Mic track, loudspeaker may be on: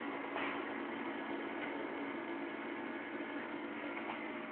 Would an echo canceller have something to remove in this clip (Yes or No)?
No